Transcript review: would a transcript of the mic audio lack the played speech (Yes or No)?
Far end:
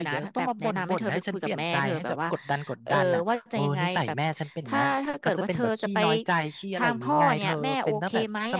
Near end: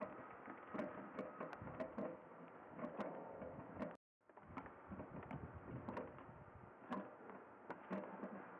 Yes